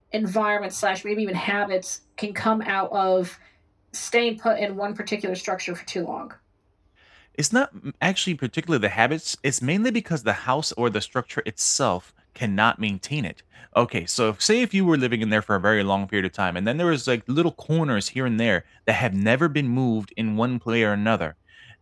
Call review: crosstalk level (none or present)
none